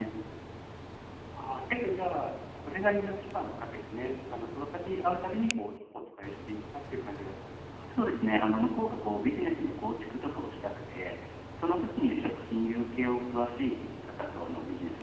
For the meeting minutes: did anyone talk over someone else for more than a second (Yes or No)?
No